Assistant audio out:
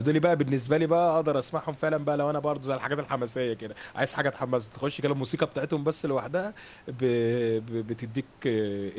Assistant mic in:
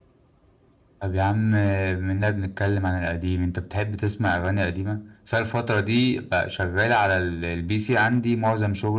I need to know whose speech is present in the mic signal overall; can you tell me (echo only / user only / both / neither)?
user only